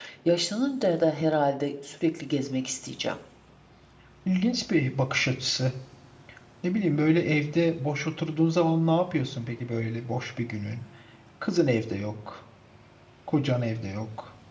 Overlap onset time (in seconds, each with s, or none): none